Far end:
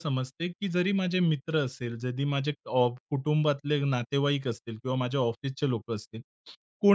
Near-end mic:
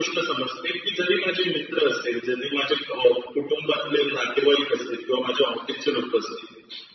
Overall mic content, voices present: echo only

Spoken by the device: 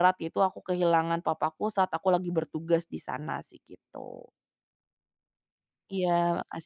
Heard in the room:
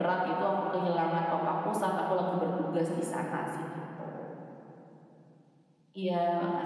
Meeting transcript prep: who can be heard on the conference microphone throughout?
echo only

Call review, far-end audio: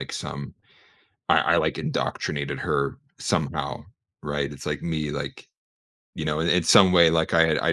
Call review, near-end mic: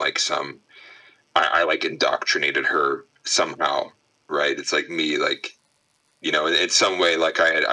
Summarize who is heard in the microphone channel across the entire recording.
echo only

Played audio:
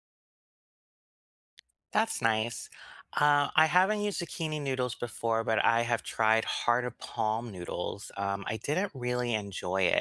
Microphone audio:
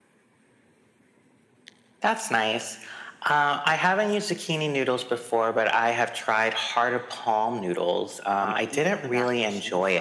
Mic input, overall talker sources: both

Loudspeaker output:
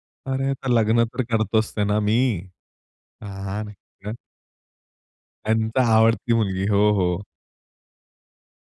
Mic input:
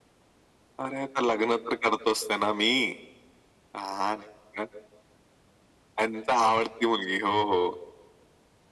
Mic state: echo only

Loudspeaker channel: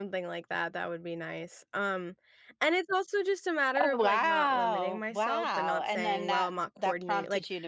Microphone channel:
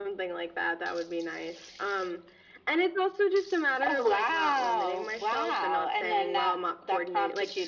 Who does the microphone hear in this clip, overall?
echo only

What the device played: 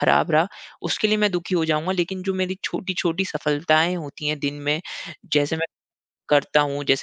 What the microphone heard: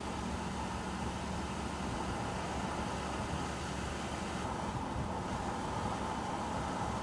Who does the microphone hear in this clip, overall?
neither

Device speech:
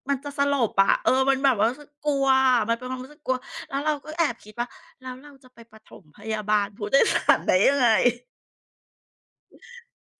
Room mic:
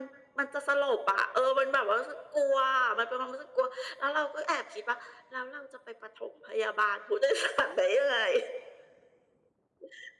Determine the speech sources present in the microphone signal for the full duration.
echo only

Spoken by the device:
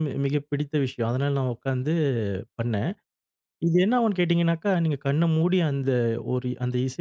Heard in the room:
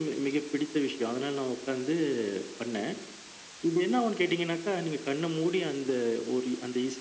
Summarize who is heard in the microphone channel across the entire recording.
echo only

